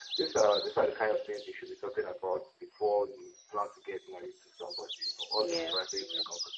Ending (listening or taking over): listening